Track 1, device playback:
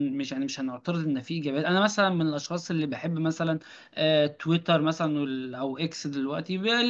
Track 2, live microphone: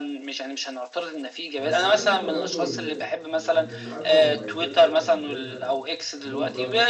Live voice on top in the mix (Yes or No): No